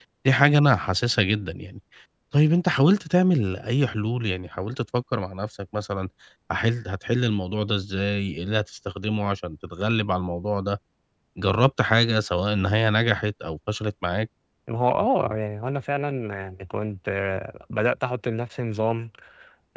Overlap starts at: none

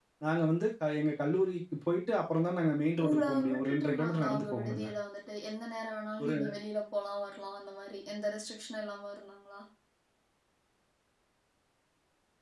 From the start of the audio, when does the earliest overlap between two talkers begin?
3 s

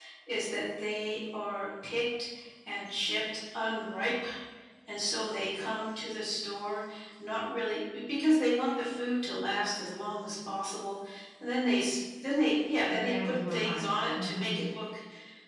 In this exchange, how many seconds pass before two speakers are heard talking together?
13 s

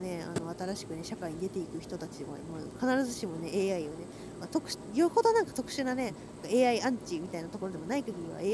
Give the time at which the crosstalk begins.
none

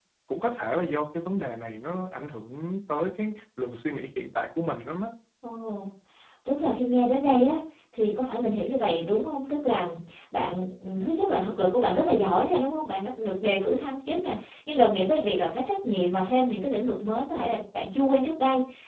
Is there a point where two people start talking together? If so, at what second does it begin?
none

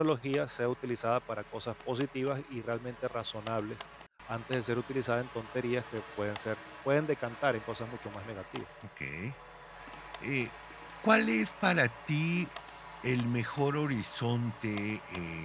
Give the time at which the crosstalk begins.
none

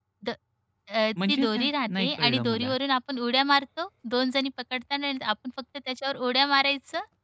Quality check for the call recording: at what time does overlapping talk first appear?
1 s

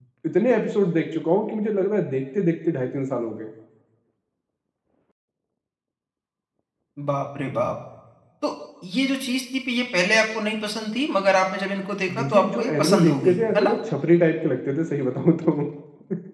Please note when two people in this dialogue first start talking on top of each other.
12 s

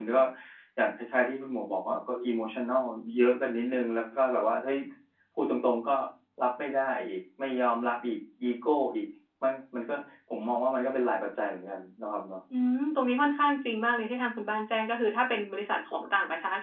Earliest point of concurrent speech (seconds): none

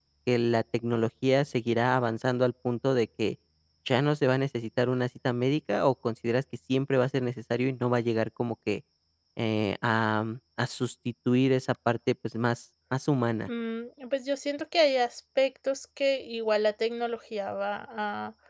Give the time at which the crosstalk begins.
none

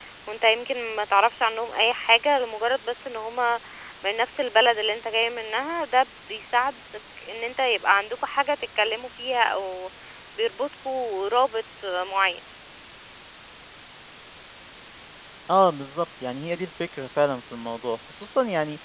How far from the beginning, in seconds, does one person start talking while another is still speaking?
none

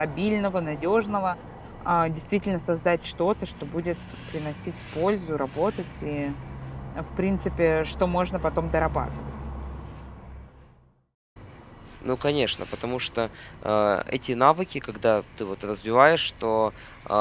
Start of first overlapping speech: none

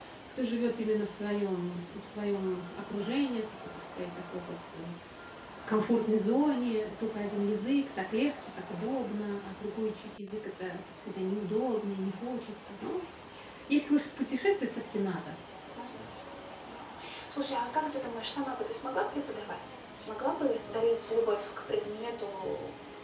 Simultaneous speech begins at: none

